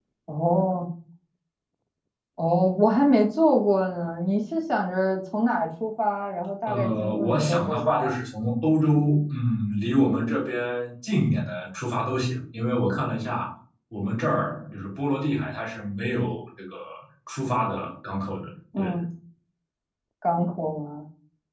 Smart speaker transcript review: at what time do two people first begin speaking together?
6.7 s

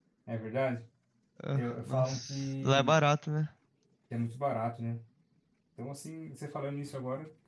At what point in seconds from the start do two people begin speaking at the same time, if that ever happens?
1.5 s

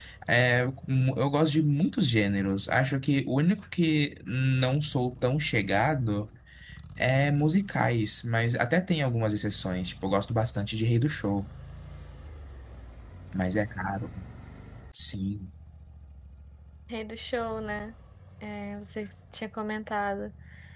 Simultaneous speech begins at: none

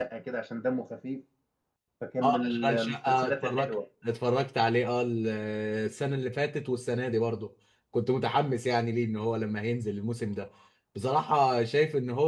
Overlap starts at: 2.2 s

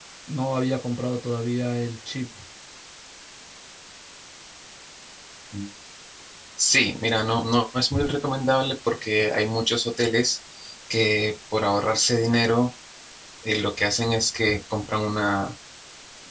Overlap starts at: none

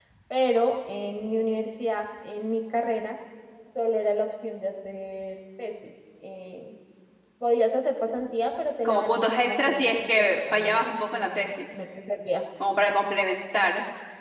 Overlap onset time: 8.8 s

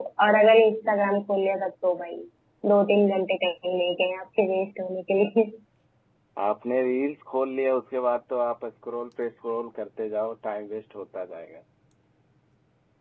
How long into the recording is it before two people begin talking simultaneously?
none

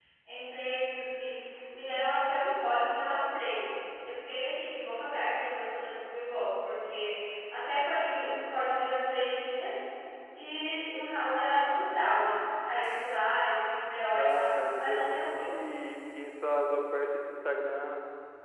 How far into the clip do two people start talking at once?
14.1 s

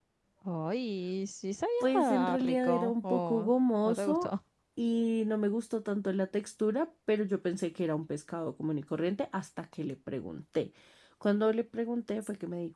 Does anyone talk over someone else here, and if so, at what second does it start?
1.8 s

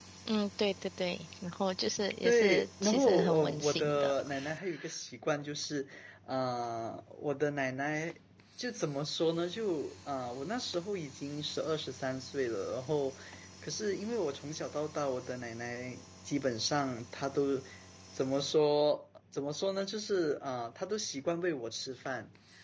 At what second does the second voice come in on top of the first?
2.2 s

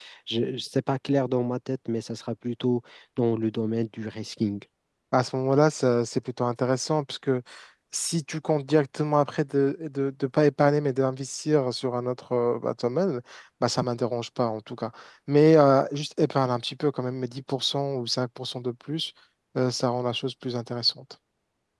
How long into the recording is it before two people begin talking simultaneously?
none

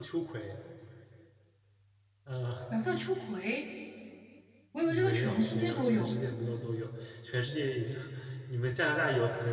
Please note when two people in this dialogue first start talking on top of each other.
4.8 s

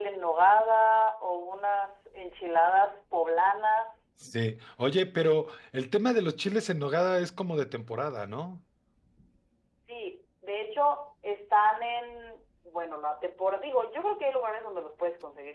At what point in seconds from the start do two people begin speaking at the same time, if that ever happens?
none

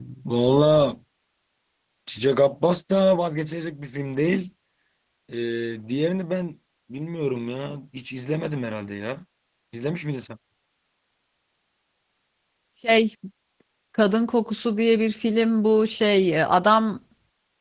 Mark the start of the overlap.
none

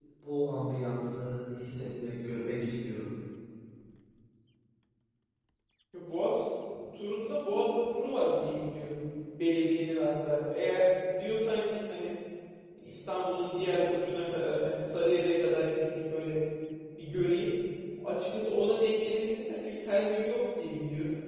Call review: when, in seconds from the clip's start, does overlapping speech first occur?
none

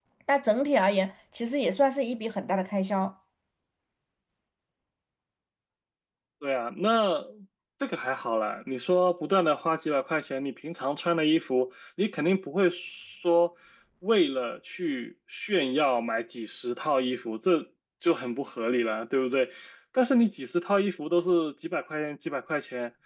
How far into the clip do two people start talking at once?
none

